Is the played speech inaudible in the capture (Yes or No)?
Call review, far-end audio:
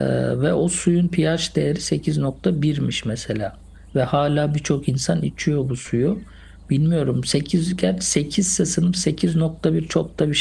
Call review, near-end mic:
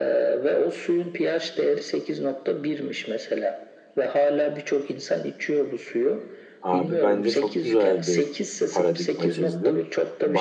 No